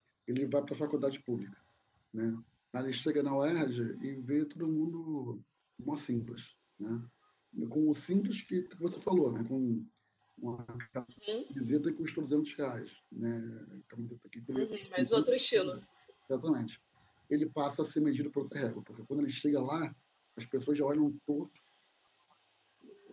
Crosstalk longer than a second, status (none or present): present